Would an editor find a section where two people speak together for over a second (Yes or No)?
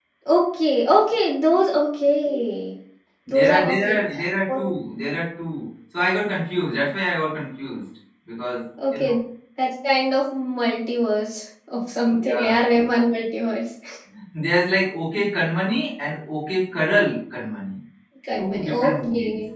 Yes